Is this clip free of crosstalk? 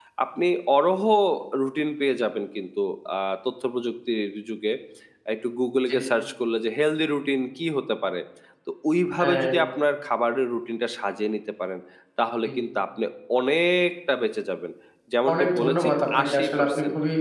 No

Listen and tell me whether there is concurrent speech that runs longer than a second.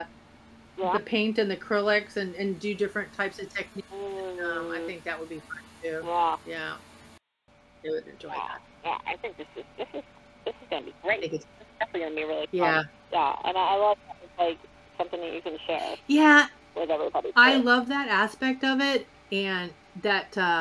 No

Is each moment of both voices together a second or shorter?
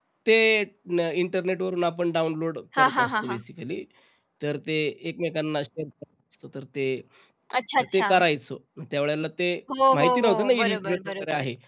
No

